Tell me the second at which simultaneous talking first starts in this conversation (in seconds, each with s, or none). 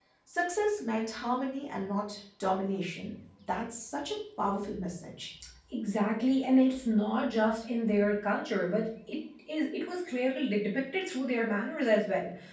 none